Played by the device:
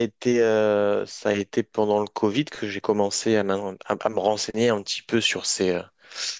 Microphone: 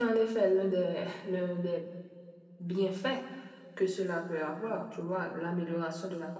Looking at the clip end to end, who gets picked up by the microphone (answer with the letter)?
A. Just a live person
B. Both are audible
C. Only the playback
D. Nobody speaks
A